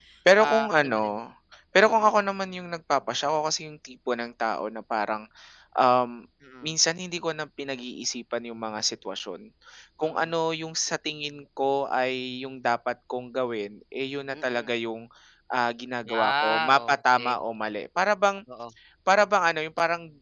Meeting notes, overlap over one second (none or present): present